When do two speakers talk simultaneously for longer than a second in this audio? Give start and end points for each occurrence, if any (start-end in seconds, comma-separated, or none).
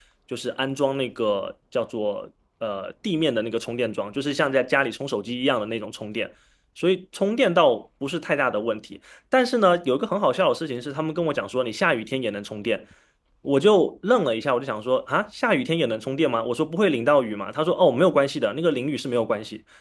none